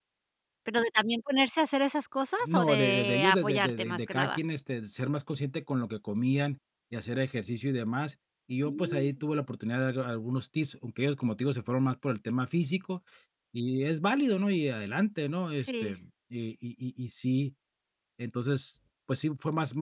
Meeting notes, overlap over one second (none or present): present